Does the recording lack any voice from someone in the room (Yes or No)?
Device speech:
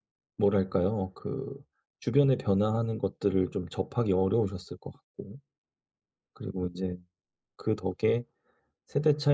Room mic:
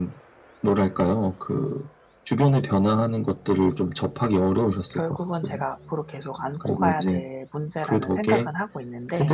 No